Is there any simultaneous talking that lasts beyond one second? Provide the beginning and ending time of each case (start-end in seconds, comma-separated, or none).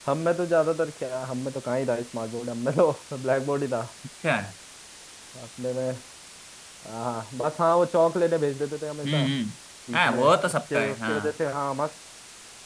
10.0-11.3